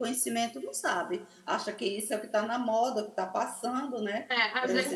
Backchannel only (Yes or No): No